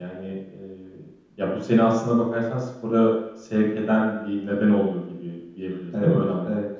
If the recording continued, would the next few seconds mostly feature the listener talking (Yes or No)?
Yes